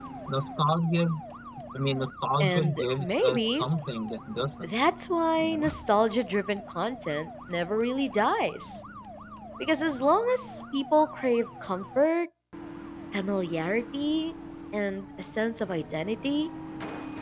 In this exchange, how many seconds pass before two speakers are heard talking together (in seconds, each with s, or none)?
2.4 s